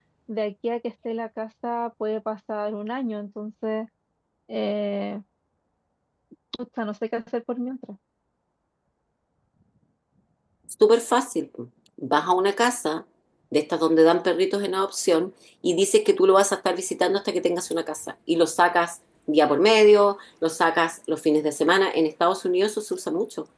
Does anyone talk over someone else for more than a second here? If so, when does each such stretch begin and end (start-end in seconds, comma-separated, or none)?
none